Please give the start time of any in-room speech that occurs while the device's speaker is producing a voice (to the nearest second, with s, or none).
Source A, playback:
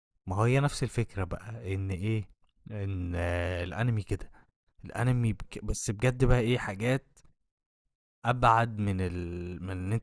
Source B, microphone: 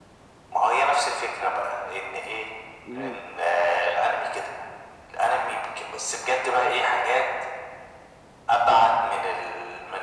3 s